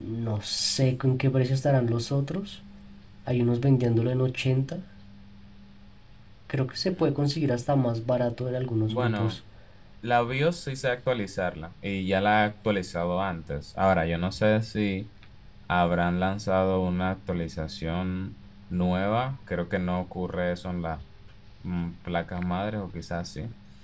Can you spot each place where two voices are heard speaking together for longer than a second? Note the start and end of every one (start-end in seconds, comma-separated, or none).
none